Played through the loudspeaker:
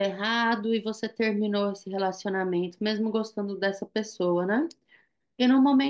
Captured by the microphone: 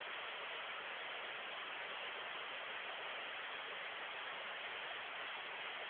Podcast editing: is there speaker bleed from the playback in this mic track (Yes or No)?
No